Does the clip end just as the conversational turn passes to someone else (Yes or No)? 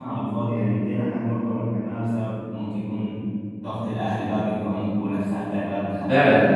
Yes